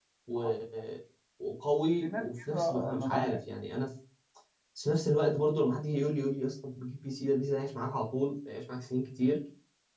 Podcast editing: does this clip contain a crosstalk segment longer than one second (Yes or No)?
Yes